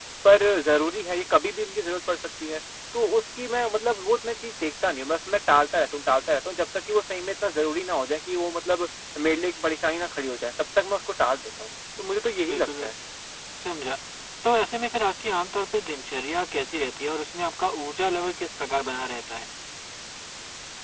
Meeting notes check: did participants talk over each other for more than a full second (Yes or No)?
No